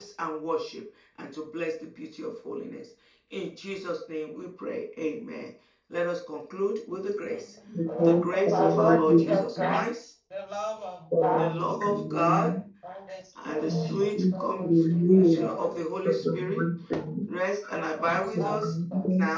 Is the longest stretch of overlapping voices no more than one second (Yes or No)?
No